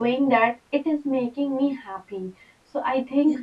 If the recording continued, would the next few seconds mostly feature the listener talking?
No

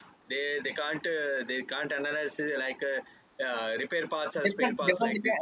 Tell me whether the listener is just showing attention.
No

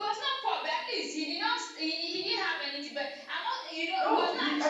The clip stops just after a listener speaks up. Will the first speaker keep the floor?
No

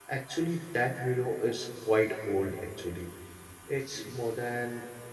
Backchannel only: Yes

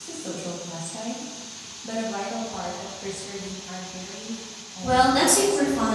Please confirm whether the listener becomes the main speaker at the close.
Yes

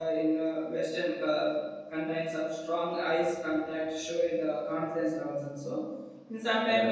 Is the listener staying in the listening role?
Yes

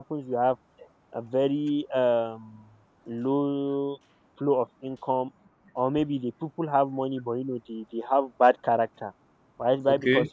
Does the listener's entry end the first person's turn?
No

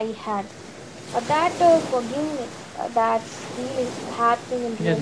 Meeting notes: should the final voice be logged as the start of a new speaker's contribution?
Yes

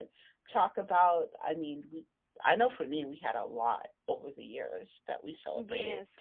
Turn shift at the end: Yes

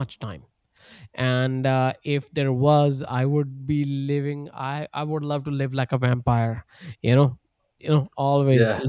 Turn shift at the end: No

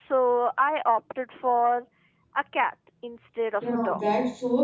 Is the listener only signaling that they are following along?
No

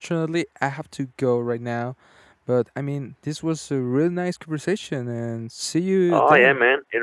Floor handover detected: Yes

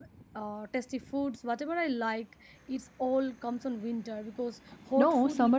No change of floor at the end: No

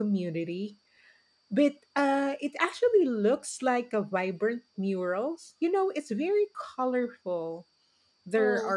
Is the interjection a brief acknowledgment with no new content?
Yes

